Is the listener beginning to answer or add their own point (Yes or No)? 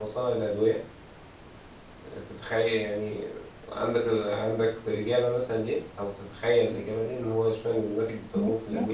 Yes